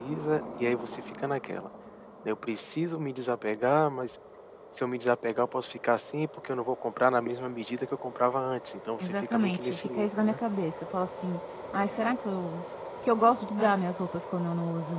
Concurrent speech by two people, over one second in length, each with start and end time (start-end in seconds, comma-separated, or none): 9.0-10.4